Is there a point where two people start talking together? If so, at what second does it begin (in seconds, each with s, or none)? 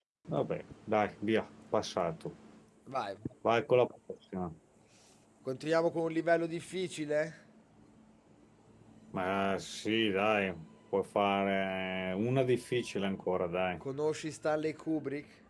none